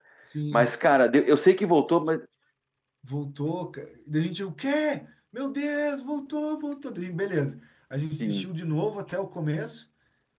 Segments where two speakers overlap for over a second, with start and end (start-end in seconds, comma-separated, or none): none